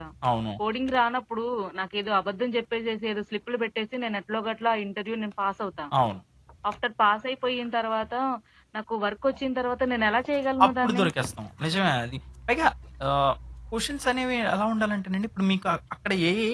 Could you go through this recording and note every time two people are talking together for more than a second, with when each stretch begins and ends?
none

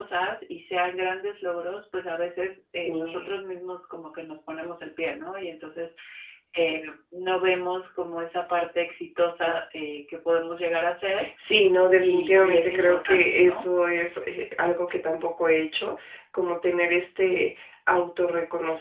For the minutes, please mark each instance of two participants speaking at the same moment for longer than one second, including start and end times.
12.0-13.6

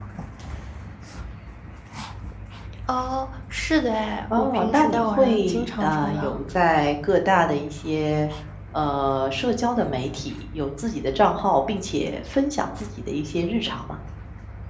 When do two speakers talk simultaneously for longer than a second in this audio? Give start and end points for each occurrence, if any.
4.4-6.4

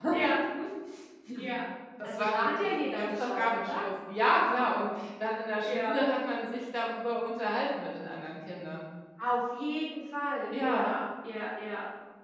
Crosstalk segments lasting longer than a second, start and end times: 2.0-3.8

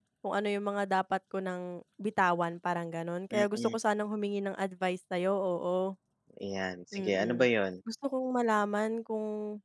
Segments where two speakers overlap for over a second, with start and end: none

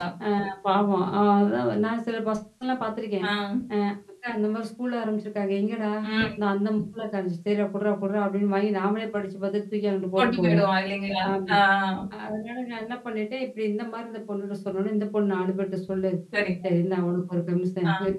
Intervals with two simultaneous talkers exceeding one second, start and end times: none

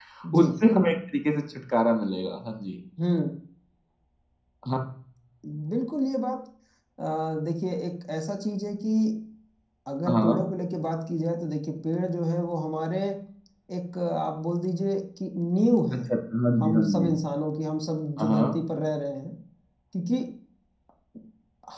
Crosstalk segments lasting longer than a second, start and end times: none

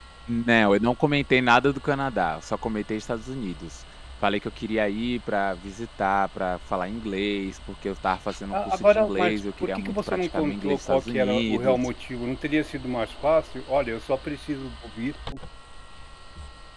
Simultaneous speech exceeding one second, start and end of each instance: 8.5-11.8

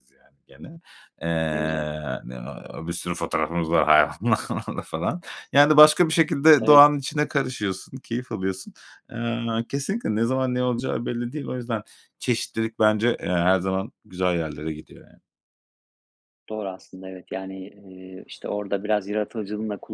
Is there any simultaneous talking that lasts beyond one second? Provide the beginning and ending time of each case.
none

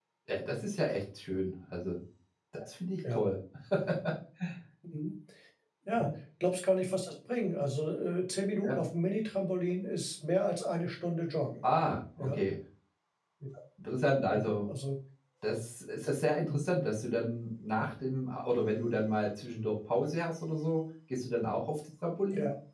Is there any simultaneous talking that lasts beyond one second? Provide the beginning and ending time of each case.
none

